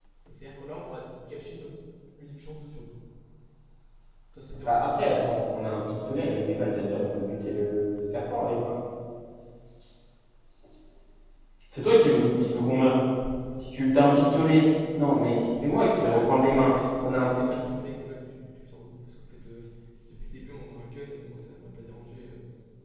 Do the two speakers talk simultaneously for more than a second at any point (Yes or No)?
Yes